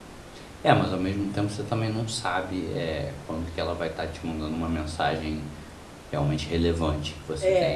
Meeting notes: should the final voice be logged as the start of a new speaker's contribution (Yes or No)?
Yes